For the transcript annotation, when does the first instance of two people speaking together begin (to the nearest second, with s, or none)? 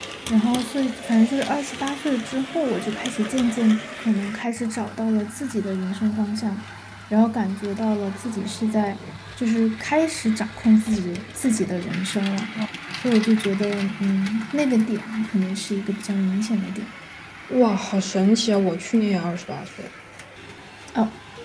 none